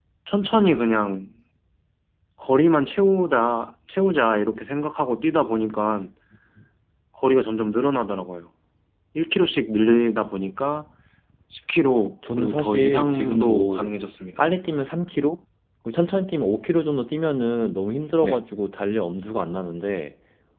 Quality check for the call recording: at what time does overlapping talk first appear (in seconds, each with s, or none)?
12.3 s